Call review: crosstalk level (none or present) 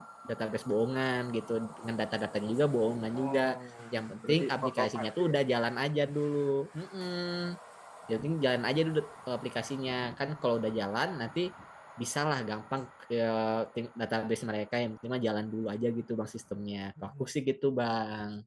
present